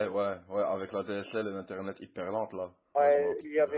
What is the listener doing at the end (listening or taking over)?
taking over